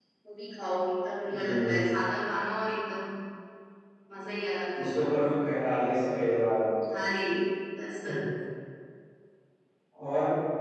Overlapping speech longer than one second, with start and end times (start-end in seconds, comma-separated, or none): none